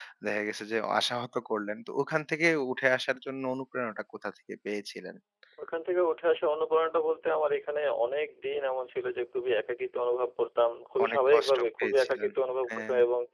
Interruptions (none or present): present